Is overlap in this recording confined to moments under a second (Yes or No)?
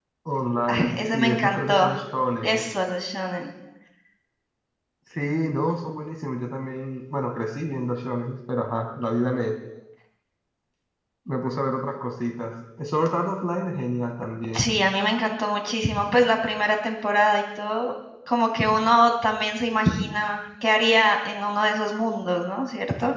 No